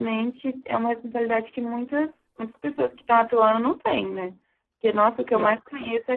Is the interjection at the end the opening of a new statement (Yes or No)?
No